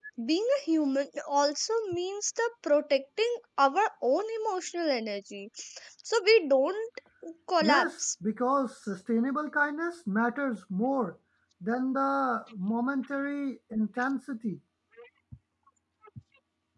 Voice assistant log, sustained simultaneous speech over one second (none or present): none